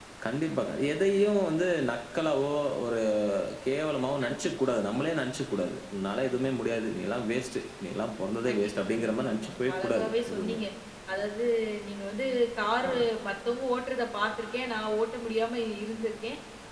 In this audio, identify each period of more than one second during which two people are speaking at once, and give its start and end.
8.5-10.6

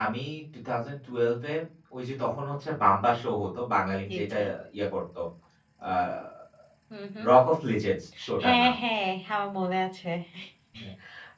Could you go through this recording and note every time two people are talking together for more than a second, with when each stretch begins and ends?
none

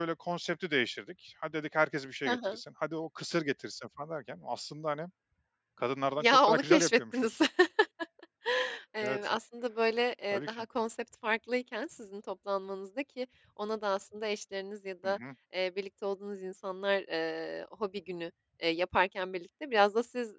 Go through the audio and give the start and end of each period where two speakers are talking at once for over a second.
6.2-7.4

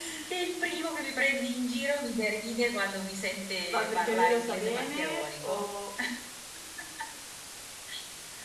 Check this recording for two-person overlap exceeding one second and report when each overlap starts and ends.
3.7-5.6

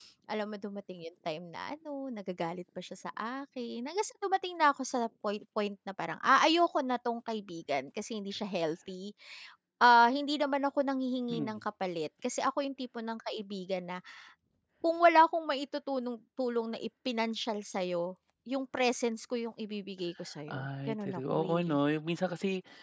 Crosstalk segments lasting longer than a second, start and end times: 20.5-21.8

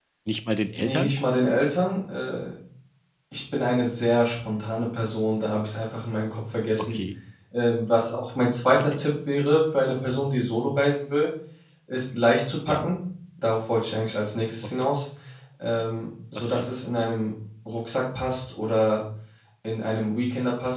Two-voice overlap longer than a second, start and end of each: none

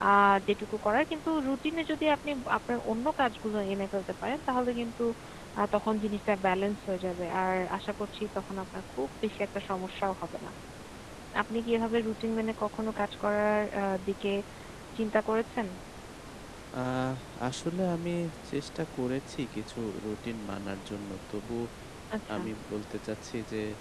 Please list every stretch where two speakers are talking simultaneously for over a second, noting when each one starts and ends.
none

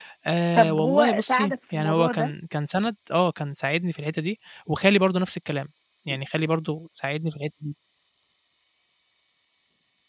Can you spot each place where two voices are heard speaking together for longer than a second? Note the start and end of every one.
0.6-2.3

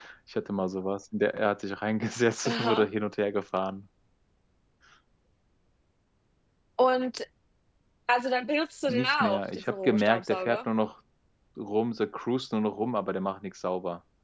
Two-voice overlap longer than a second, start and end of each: 8.9-10.6

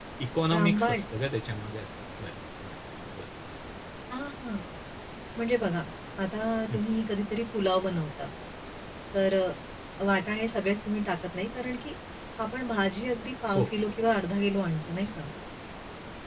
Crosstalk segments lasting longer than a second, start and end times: none

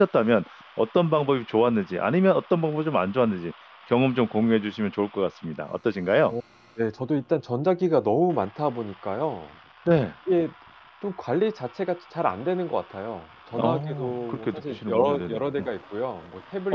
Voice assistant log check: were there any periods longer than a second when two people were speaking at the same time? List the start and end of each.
13.5-15.7

